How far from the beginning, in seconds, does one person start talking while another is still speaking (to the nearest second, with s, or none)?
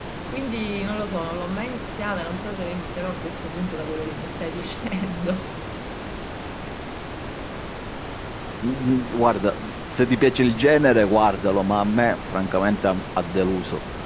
none